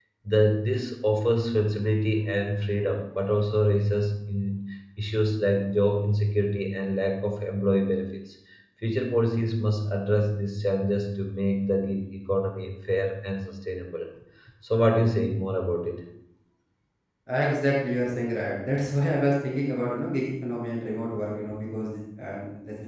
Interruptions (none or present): none